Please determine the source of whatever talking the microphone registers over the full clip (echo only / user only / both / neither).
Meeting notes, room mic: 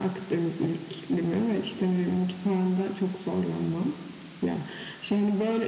echo only